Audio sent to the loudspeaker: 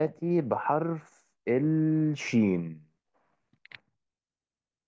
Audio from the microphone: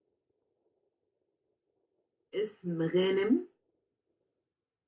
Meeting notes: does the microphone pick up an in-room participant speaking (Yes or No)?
Yes